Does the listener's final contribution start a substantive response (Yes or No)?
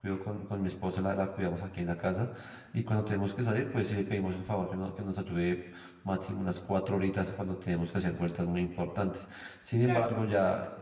No